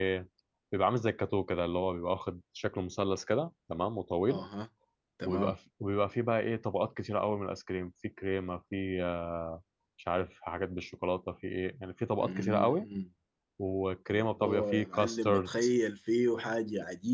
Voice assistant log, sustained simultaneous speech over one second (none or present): present